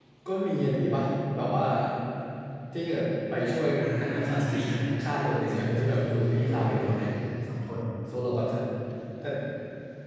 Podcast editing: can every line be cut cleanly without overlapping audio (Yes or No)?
No